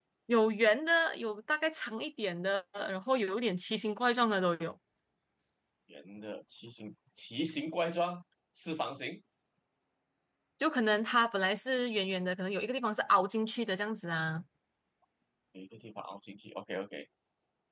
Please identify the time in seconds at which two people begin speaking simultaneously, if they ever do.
none

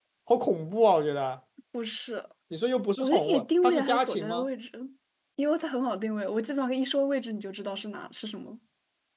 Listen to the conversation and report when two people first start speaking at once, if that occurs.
3.0 s

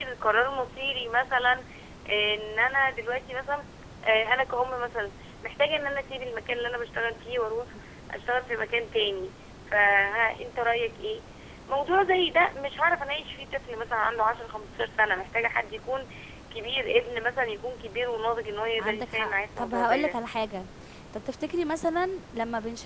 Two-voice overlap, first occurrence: 18.8 s

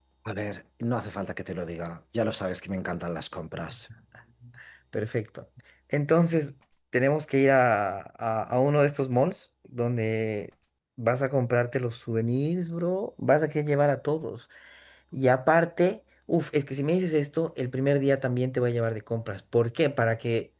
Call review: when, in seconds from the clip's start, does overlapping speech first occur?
none

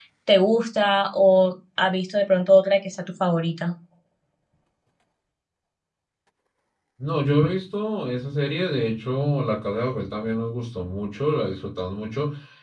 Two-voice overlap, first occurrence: none

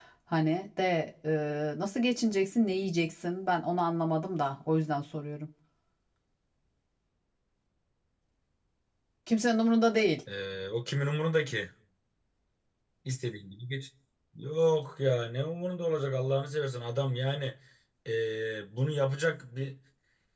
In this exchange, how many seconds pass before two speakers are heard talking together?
none

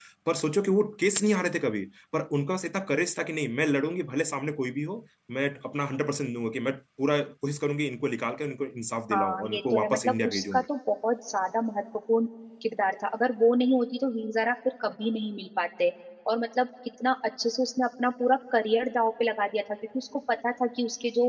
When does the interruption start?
9.1 s

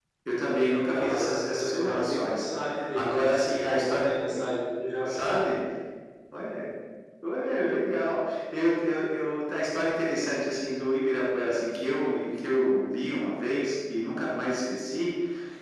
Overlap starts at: 0.9 s

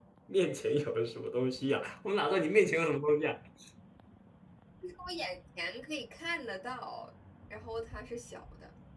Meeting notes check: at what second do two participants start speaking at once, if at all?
none

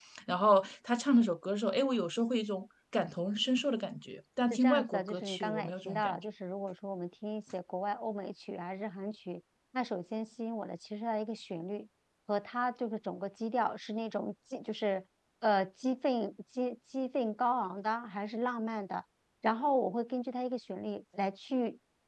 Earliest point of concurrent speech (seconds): 4.5 s

